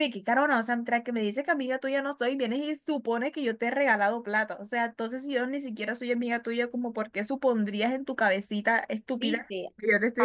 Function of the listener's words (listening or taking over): taking over